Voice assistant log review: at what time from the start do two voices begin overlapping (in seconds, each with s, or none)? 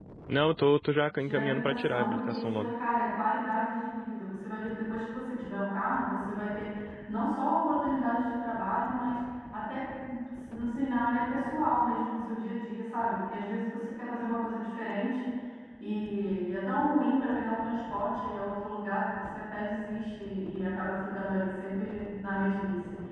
1.2 s